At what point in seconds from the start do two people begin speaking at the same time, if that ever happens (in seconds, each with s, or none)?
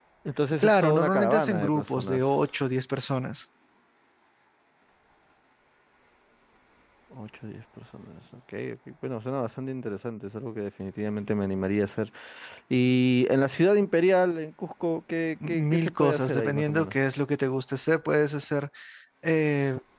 0.6 s